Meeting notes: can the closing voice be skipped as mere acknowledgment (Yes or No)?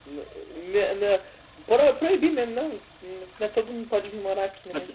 No